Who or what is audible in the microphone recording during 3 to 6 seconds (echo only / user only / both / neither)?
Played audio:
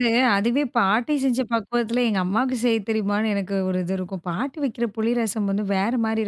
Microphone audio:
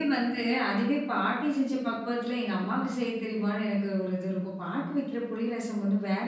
echo only